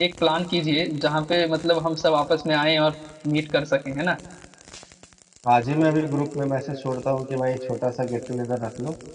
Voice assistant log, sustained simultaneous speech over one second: none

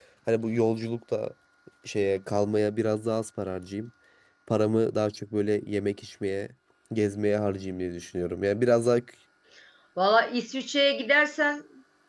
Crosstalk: none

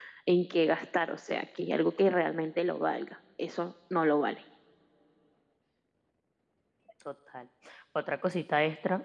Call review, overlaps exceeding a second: none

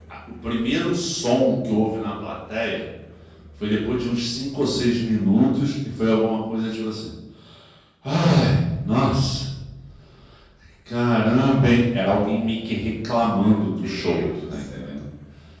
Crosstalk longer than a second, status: present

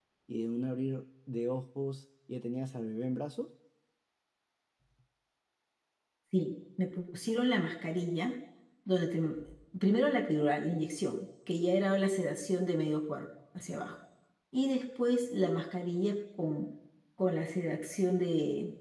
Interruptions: none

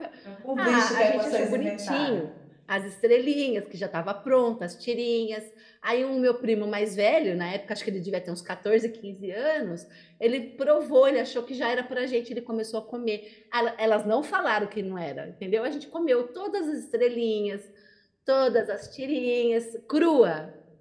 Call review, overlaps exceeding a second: present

